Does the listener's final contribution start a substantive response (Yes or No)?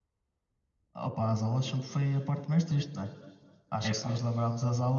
No